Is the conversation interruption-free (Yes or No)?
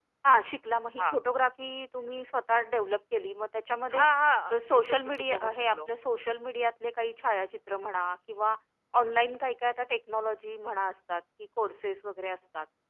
No